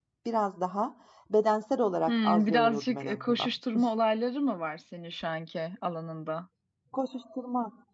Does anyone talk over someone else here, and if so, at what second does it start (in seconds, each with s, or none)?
2.1 s